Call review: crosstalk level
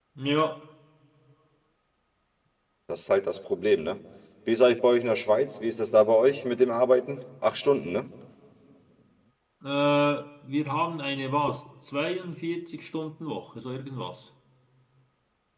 none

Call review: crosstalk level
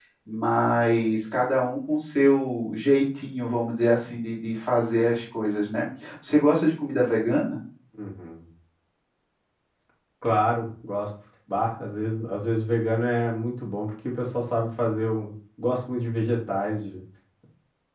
none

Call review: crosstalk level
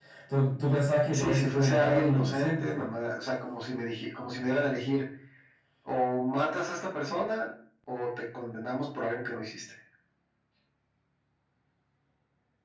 present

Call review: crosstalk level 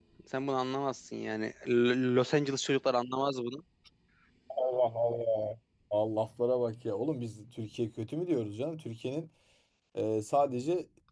none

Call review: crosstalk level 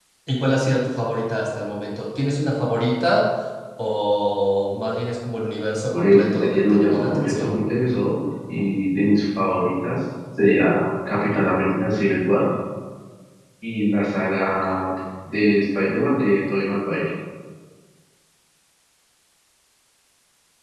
present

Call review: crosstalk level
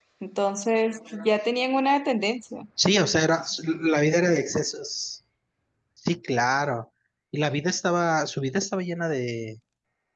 none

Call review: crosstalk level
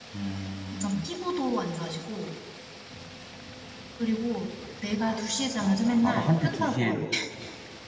present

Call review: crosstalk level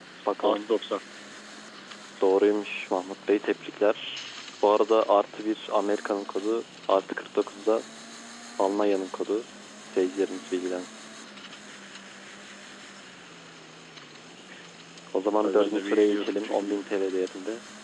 present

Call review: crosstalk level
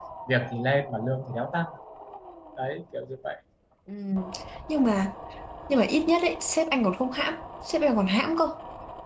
none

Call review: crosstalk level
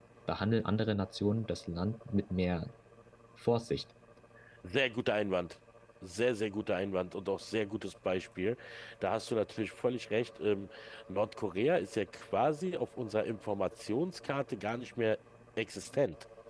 none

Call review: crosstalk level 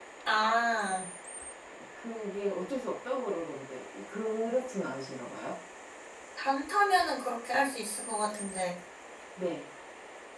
none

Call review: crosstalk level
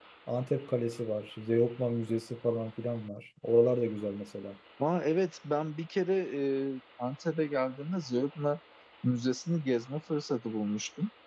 none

